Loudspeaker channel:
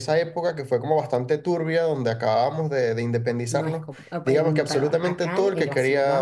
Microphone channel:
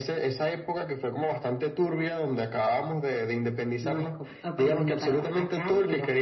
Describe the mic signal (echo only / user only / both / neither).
echo only